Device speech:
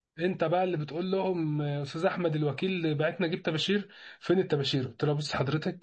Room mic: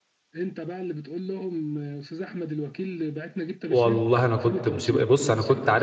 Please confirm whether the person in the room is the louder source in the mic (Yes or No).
Yes